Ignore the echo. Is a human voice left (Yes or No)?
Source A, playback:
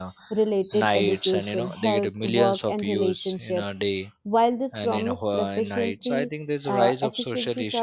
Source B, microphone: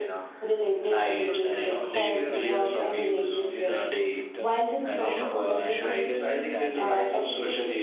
Yes